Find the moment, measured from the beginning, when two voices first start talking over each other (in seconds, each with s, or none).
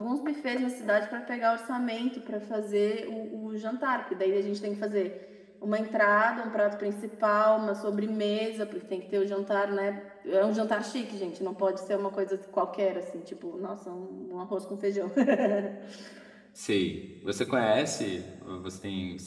none